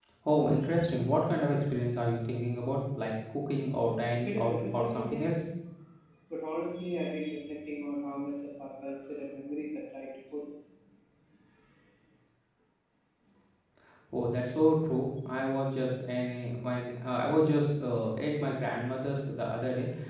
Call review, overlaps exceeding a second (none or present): present